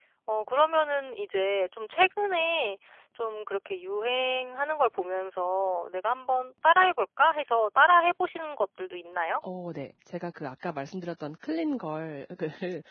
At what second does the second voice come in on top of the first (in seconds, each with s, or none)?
none